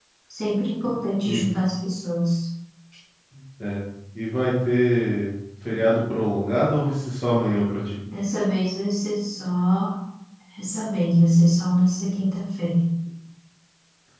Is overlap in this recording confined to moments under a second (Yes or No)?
Yes